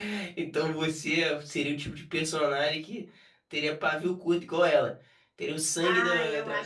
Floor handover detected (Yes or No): Yes